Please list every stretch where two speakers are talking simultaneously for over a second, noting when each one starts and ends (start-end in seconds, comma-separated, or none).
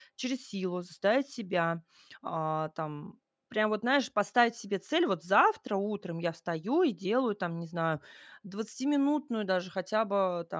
none